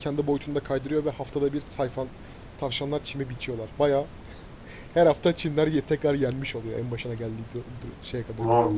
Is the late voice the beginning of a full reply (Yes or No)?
Yes